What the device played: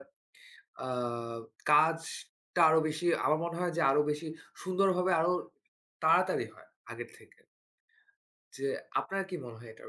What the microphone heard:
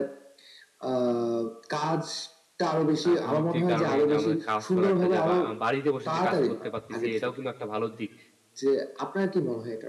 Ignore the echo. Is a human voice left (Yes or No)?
Yes